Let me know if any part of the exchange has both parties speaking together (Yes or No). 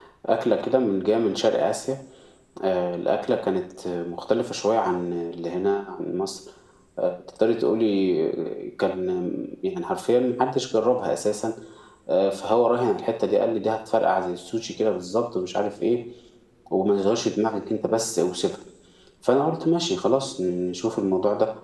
No